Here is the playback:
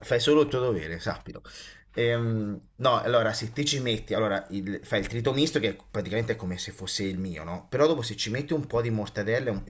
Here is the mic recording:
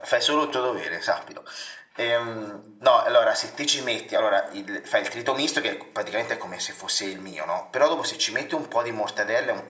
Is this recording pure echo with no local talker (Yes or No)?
Yes